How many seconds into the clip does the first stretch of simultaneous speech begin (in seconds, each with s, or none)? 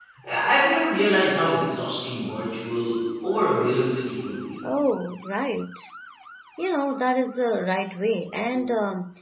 none